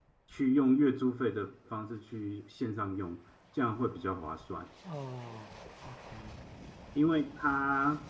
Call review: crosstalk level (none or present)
none